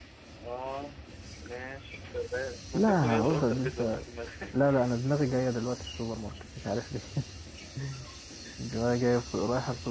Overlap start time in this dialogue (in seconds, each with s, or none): 2.7 s